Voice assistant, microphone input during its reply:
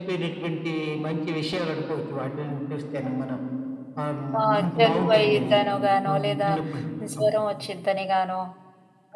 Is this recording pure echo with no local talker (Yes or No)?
No